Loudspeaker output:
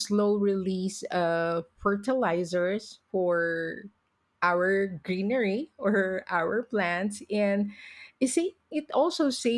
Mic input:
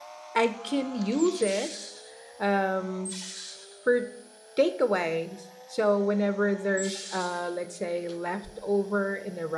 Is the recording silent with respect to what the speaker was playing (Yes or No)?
Yes